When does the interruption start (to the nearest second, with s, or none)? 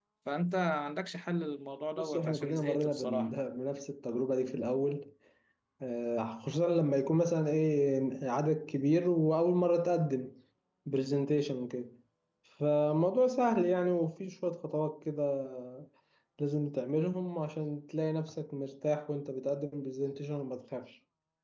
2 s